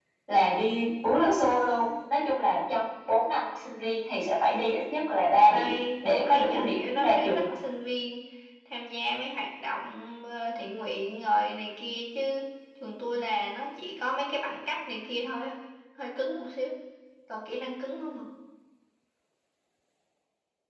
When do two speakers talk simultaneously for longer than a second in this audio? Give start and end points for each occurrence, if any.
5.5-7.4

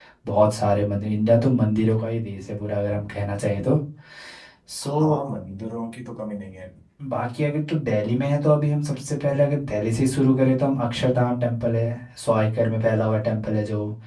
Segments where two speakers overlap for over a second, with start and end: none

